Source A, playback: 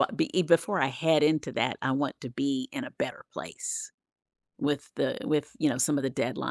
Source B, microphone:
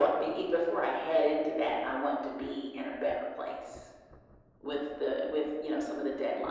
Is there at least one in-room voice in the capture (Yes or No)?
No